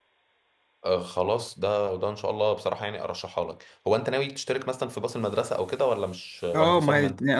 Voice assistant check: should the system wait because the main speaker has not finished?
No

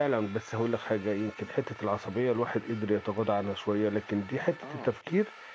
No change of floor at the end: Yes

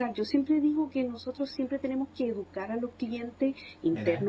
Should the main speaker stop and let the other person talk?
No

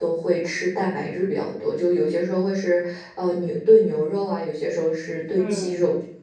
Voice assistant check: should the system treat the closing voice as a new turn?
Yes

